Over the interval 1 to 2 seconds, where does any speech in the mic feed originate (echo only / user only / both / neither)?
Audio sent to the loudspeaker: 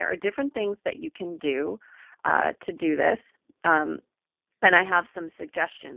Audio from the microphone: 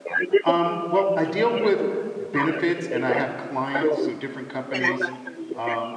both